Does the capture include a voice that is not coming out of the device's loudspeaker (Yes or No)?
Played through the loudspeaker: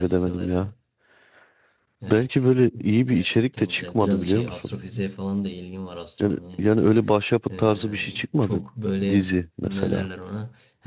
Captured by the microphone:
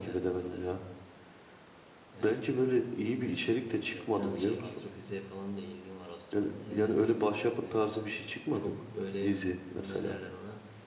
Yes